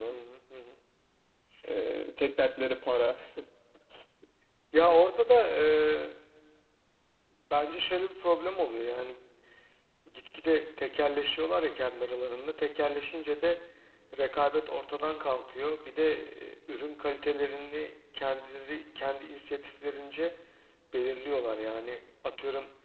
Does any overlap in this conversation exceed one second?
No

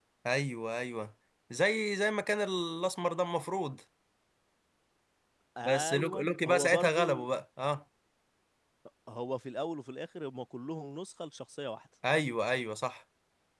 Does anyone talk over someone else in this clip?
Yes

